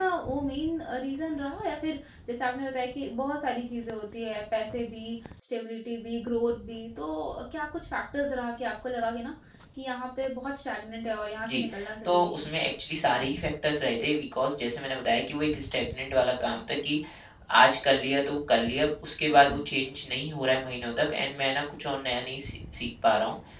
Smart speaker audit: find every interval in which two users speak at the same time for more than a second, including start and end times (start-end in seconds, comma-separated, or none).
none